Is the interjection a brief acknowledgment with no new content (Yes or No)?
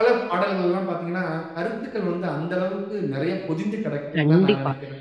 No